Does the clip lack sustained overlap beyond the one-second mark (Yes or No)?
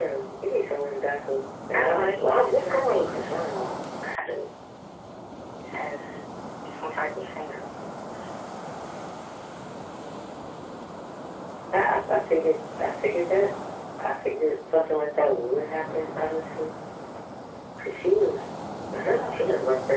No